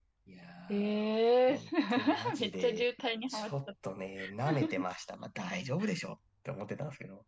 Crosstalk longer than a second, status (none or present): present